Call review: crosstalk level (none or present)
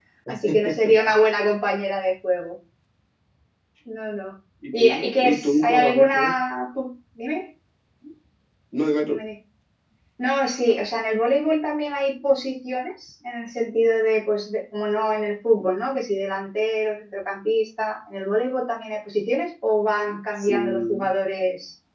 present